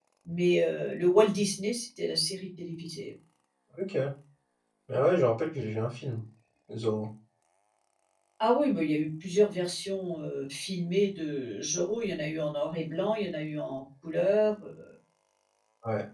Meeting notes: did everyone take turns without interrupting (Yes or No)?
Yes